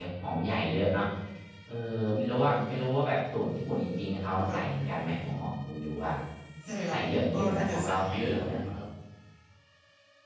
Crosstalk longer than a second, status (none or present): present